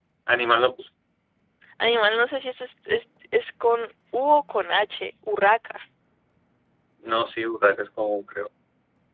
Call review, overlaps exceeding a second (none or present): none